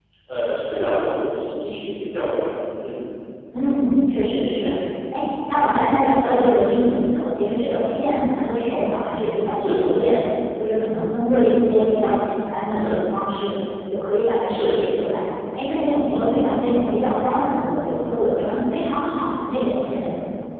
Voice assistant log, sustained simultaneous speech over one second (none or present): none